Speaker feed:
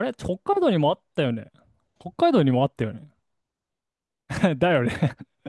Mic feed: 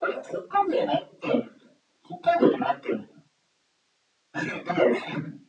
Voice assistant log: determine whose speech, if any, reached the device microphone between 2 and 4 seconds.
echo only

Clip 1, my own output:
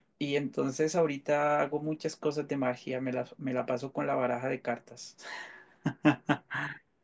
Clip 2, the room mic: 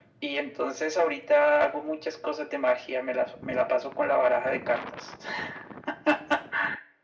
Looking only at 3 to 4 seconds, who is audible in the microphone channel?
echo only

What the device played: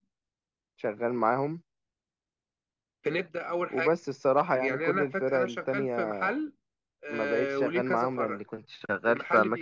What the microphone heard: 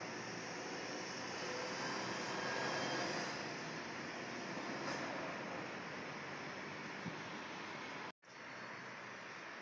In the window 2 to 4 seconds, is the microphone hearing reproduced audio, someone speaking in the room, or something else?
neither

